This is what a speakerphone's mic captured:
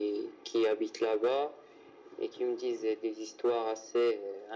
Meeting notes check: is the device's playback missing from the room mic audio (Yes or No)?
No